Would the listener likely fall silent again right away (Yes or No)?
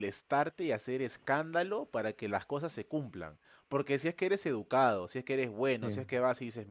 Yes